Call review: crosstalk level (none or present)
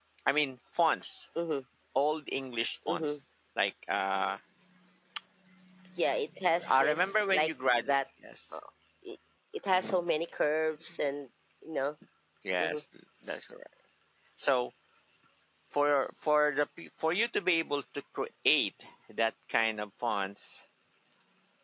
present